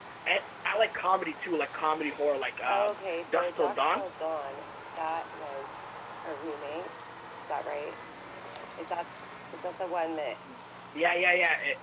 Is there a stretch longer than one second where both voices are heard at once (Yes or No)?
Yes